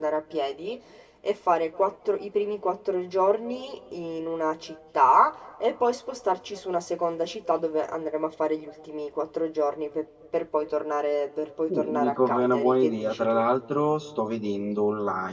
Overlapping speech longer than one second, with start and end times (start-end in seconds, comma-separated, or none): 11.7-13.4